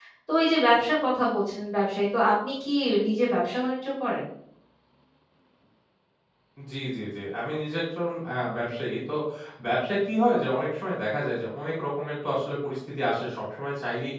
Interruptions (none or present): none